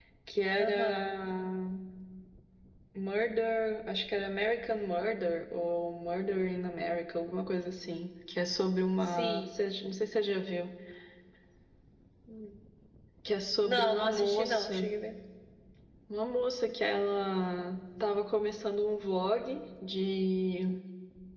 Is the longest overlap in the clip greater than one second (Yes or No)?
Yes